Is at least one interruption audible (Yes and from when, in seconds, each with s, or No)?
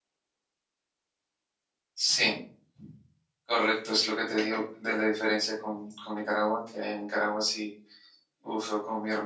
No